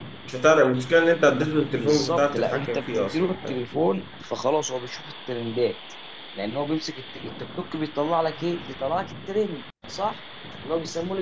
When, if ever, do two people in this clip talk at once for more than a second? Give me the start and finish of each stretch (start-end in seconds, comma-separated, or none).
1.7-3.6